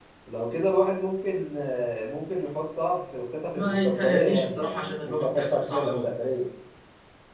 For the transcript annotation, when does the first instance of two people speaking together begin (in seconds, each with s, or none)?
3.5 s